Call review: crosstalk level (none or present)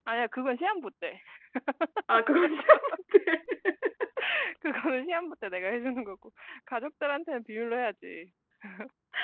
none